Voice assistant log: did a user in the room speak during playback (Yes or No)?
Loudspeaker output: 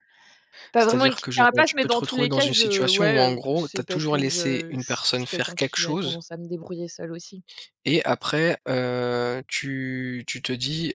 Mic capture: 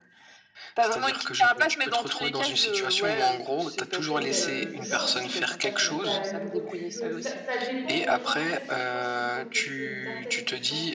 Yes